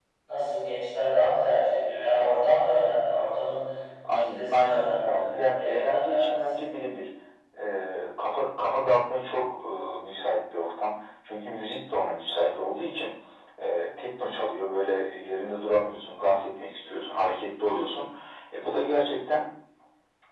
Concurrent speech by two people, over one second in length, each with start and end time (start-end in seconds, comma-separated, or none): 4.3-6.6